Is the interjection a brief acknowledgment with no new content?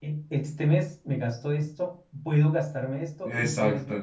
Yes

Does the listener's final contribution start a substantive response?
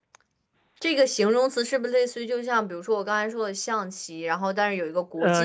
Yes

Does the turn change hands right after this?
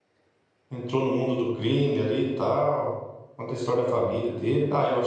No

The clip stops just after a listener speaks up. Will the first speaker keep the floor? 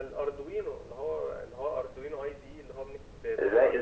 No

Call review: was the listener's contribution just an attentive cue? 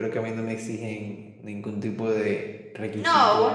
No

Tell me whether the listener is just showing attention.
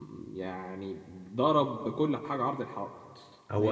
No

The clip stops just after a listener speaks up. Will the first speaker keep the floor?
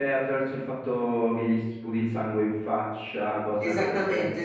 No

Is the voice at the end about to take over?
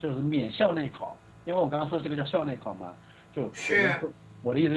No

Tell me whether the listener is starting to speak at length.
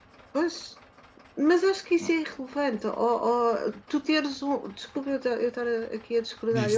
No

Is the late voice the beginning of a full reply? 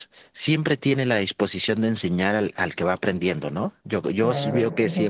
Yes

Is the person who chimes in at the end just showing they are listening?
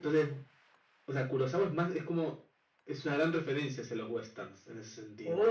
No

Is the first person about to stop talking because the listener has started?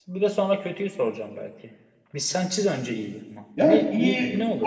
Yes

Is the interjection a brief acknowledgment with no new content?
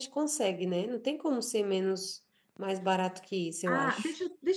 No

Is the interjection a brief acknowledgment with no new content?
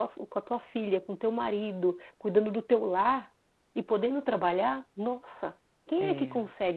Yes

